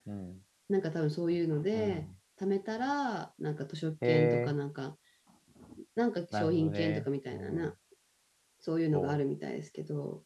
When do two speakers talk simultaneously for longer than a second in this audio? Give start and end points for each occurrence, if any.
6.3-7.7

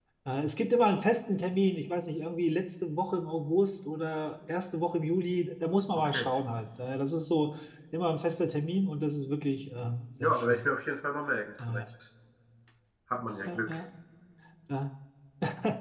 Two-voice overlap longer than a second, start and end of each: none

